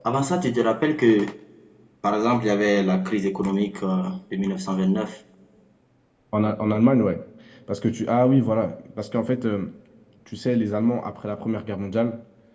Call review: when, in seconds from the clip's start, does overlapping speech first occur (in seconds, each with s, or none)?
none